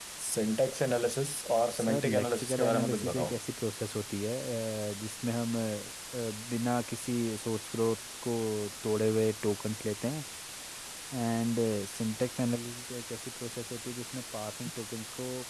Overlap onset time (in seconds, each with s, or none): 1.8 s